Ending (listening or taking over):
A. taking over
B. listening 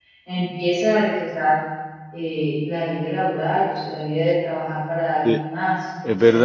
A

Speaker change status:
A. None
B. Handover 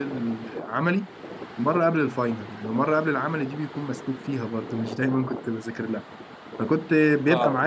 A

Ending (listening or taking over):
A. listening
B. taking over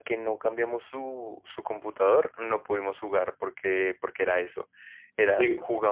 A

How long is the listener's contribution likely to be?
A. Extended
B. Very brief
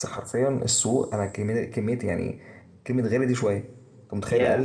B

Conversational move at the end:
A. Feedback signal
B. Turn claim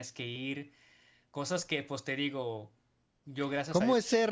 B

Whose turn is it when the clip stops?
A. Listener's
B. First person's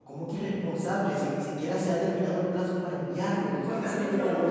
A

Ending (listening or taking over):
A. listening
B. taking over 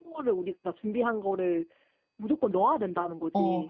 B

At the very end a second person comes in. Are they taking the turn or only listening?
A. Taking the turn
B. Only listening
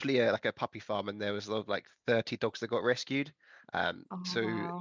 B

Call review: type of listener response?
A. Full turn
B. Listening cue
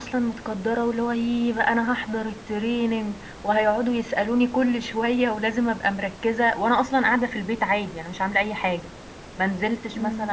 B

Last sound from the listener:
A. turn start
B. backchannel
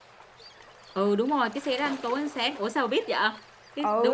A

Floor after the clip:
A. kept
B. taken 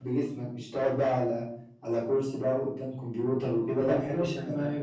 B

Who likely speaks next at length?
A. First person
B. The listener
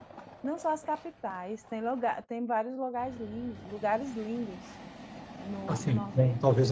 B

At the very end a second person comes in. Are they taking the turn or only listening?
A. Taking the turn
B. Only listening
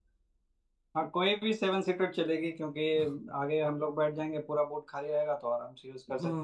A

